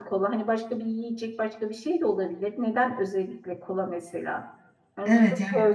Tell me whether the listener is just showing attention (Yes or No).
No